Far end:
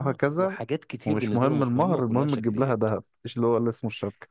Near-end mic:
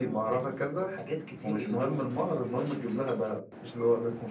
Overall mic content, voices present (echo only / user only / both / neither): echo only